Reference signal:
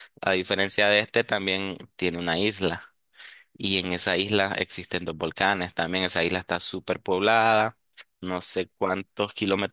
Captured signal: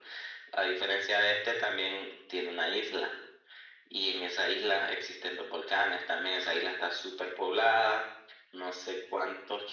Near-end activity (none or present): none